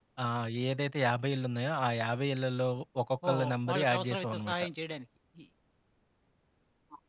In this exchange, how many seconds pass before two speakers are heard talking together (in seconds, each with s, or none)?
3.2 s